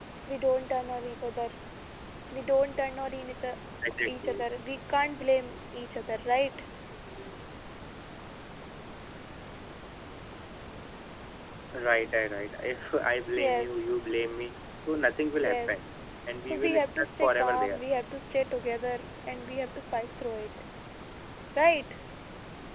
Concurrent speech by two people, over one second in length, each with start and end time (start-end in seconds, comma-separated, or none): 16.4-17.8